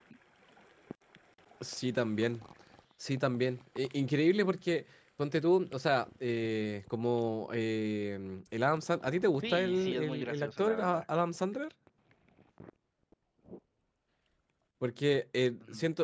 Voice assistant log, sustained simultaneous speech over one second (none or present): present